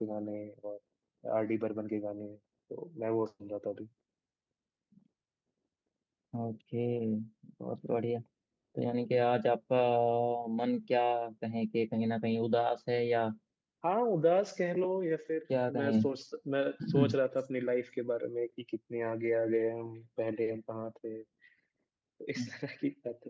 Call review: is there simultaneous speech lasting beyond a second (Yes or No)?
No